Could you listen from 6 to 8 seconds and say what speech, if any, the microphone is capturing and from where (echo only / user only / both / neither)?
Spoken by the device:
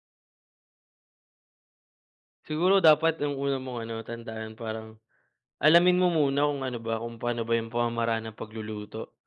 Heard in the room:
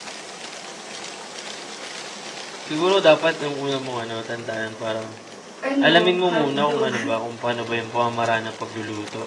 both